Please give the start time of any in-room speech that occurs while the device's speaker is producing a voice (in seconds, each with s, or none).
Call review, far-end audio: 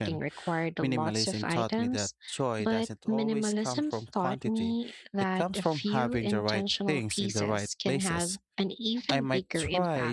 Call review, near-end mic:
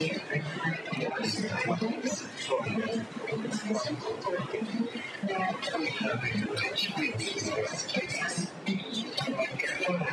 none